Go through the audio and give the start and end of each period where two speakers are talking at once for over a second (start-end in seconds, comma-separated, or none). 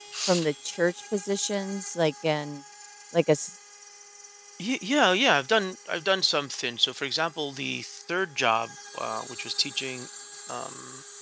none